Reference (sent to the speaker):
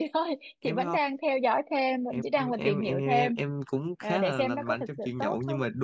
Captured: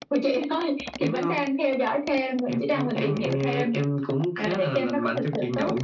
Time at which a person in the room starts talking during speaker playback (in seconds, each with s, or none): none